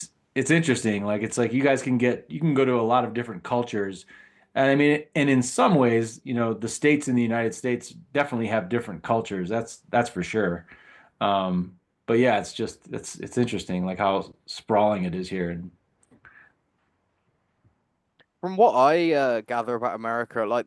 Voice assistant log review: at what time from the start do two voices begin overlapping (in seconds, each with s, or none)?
none